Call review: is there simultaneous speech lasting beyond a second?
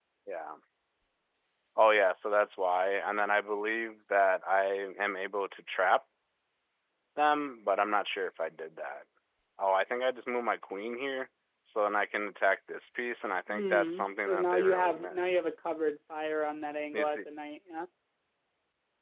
Yes, from 13.5 s

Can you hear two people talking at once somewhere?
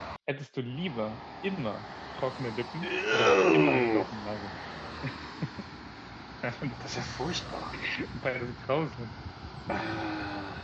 Yes, from 2.8 s

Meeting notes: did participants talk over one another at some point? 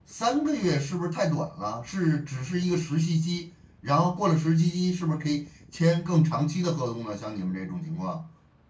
No

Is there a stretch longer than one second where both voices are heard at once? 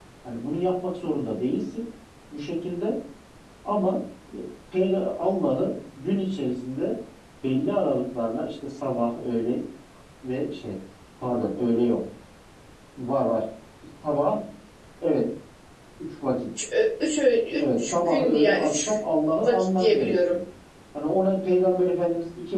Yes, from 17.6 s

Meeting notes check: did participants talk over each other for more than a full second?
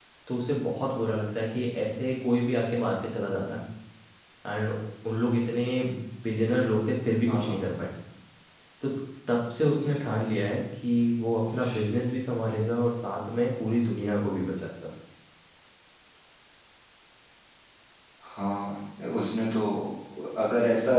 No

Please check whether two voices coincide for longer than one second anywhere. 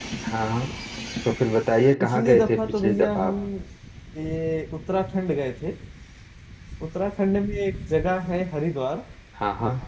Yes, from 2.0 s

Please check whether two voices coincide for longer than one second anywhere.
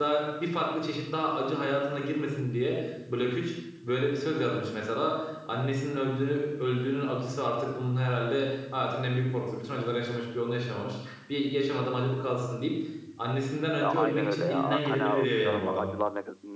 Yes, from 13.8 s

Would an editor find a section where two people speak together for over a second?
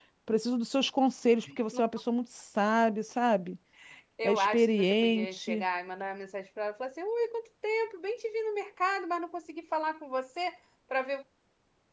Yes, from 4.2 s

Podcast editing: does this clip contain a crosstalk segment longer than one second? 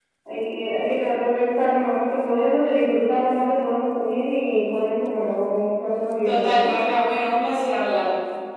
No

